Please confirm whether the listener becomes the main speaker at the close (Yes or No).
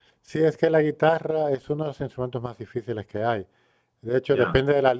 No